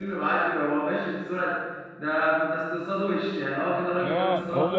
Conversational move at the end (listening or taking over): taking over